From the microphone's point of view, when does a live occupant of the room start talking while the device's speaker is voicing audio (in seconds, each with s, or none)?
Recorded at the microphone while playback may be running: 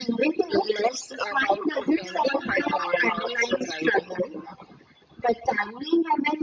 none